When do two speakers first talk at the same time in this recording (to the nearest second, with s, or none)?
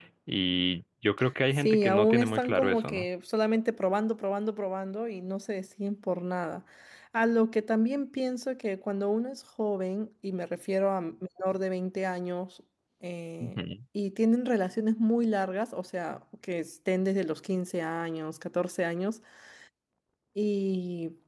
2 s